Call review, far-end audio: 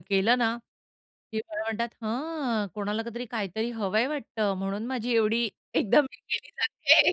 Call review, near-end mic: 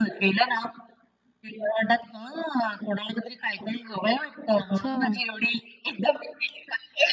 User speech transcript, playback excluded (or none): अच्छा.